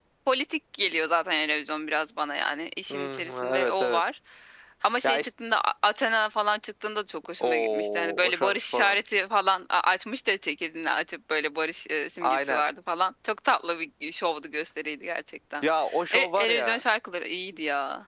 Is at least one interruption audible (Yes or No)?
Yes